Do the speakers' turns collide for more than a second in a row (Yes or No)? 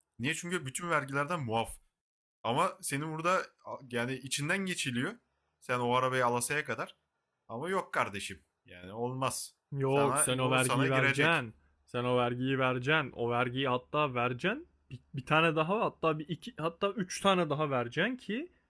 Yes